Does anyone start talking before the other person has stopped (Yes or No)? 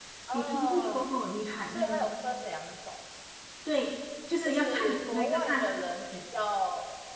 Yes